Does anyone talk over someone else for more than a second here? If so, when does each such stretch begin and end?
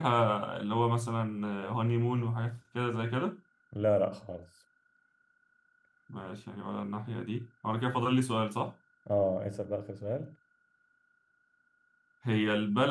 none

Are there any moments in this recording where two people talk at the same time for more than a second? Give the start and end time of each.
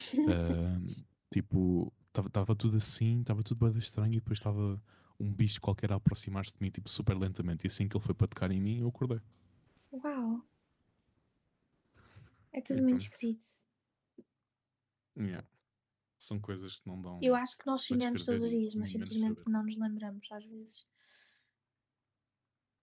17.9-19.4

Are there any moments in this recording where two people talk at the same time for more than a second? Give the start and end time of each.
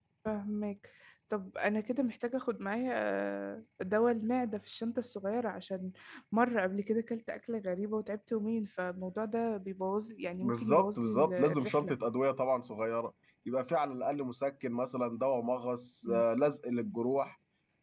10.4-11.9

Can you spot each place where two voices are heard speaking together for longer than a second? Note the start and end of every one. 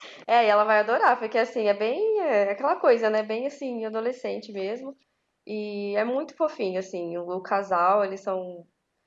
none

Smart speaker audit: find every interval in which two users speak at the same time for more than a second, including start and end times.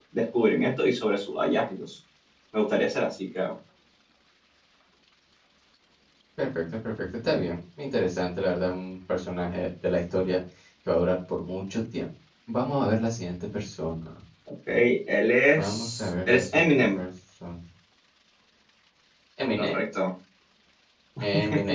15.6-17.0

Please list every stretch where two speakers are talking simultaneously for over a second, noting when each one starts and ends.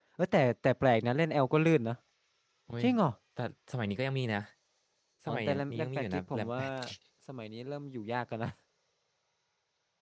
5.3-6.6

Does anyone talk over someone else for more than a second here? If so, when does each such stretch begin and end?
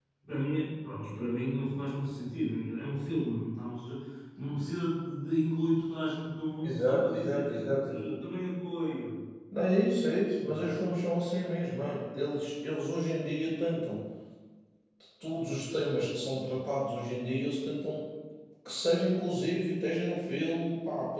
6.6-8.1

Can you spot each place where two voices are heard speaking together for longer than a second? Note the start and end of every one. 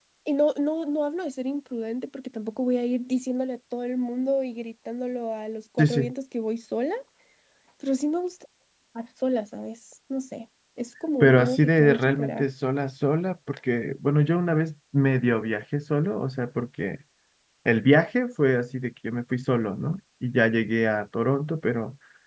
11.2-12.4

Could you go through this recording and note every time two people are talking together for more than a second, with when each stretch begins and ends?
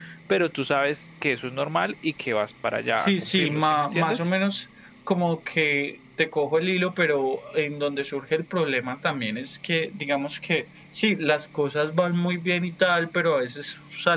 3.0-4.3

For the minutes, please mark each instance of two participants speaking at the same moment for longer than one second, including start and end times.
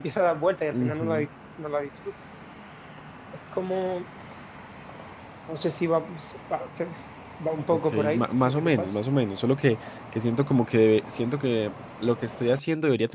7.7-9.0

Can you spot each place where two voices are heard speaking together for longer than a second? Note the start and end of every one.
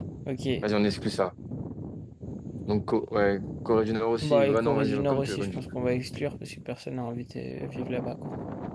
4.2-5.6

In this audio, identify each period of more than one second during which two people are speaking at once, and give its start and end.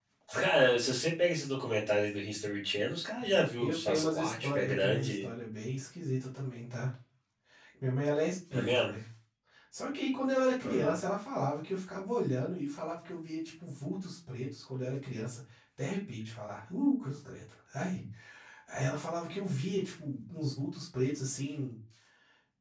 3.6-5.2

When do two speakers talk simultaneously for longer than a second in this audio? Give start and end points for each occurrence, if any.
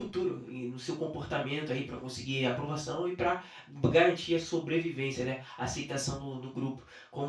none

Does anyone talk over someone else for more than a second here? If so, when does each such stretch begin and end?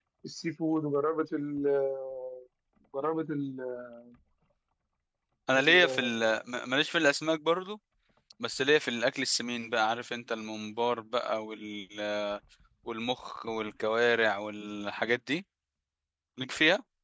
none

